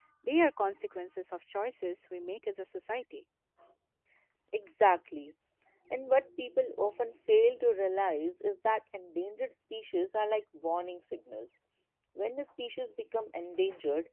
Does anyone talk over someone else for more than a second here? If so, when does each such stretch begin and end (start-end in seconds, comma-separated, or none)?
none